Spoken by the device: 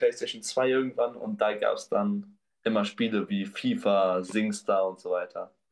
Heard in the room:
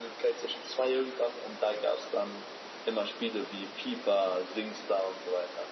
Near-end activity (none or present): none